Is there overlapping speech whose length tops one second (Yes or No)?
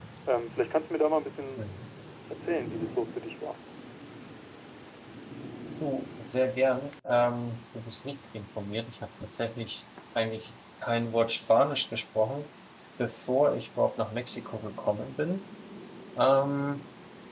No